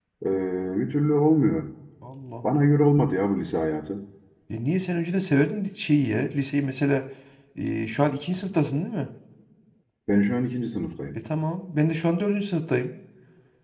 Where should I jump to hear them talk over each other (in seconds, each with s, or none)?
none